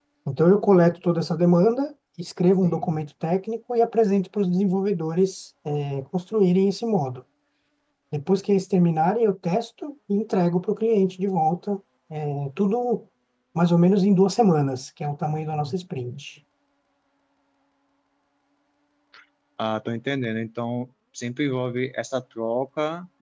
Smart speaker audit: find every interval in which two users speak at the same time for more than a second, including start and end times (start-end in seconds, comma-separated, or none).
none